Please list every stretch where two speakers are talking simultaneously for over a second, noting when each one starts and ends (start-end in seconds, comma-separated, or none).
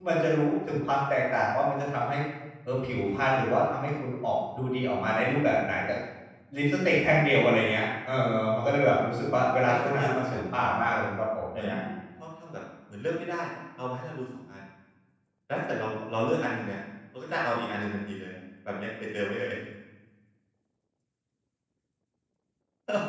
9.7-11.0